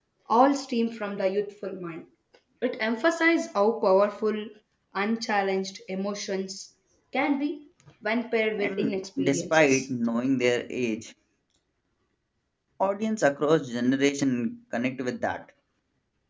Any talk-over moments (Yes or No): Yes